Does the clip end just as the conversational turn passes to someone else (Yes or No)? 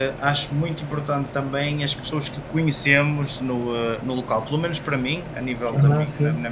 No